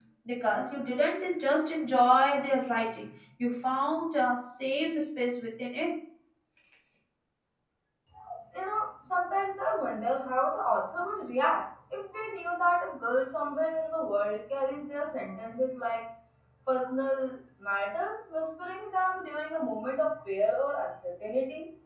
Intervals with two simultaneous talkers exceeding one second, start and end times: none

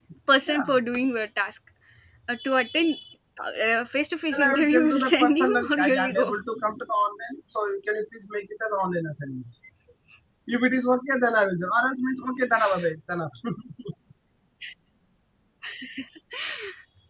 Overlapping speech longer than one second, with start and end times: 4.3-6.3

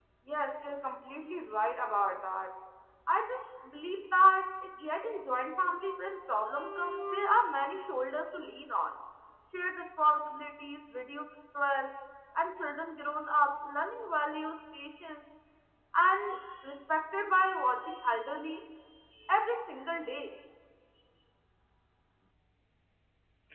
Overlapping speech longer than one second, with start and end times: none

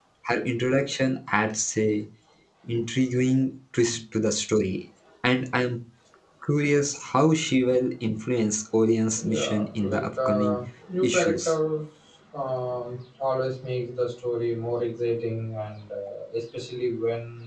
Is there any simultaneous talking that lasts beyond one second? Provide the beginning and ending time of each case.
9.4-10.6

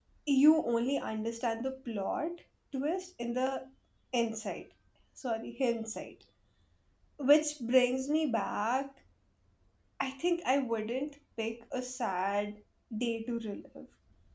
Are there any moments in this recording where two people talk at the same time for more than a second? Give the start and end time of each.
none

